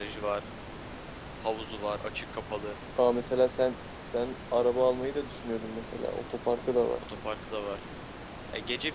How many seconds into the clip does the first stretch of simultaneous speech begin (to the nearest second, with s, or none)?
none